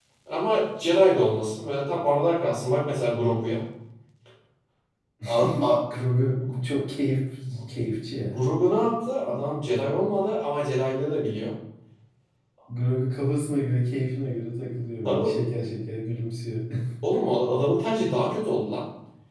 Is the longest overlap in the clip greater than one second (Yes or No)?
No